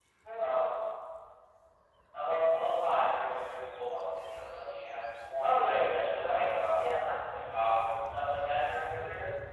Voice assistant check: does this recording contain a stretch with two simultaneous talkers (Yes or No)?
Yes